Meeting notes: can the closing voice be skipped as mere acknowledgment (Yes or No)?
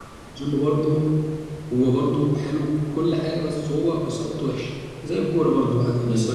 Yes